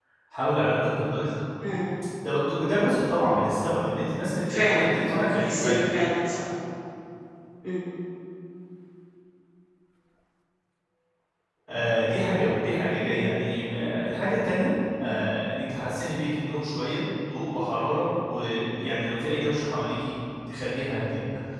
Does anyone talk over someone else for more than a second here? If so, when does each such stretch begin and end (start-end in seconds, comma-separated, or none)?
4.5-5.8